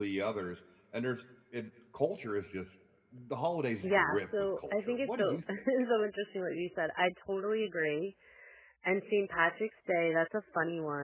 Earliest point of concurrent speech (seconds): 4 s

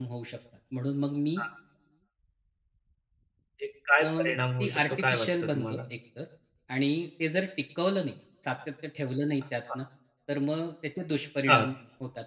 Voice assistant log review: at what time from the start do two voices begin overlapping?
4 s

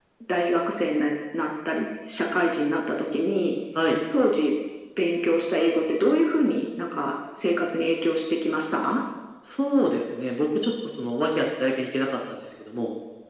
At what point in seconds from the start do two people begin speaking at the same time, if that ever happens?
none

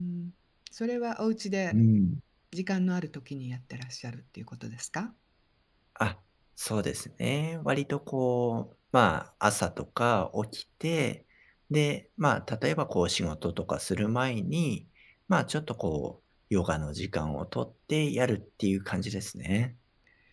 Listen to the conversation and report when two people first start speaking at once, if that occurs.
none

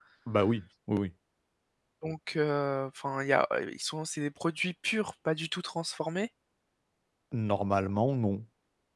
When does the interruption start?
none

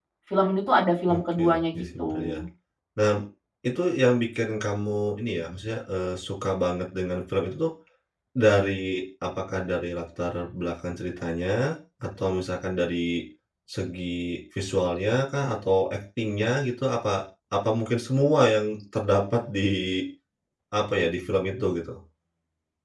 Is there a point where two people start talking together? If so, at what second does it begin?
1 s

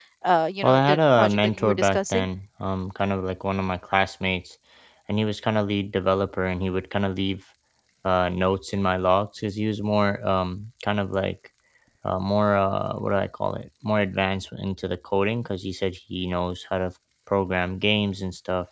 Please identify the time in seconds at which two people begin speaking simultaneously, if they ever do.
1 s

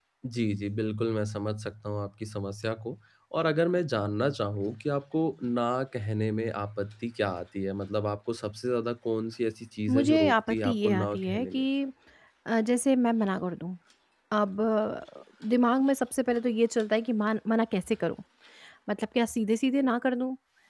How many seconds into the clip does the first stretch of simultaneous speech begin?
10 s

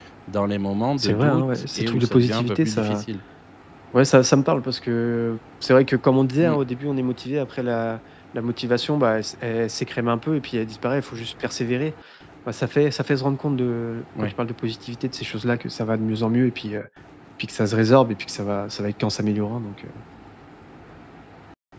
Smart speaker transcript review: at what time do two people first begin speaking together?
1 s

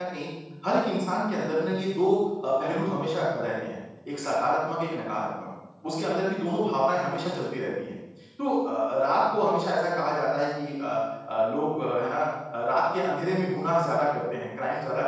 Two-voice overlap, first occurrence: none

